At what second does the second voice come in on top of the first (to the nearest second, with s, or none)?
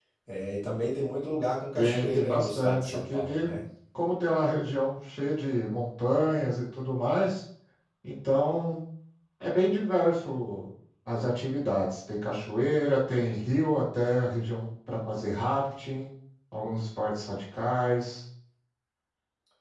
2 s